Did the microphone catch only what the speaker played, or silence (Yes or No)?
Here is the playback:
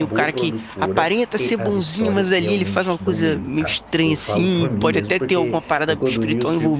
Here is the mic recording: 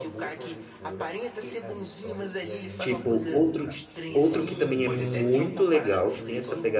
No